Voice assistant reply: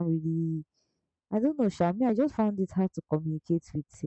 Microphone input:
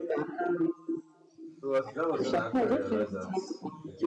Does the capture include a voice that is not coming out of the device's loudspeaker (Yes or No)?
Yes